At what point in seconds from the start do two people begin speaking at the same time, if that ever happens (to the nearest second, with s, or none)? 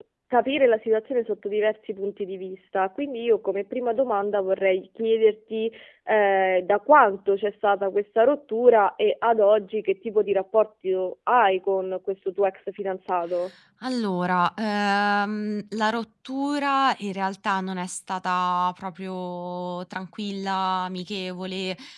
none